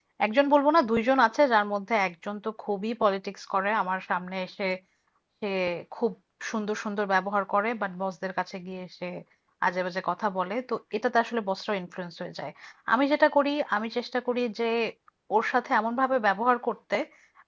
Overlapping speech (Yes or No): No